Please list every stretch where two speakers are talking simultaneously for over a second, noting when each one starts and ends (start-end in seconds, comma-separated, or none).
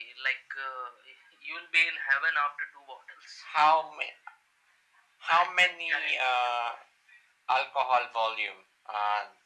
5.3-6.6